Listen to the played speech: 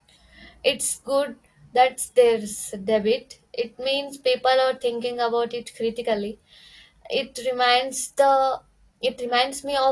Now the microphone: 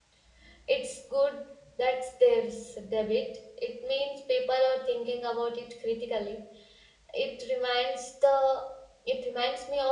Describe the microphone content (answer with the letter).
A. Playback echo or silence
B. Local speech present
A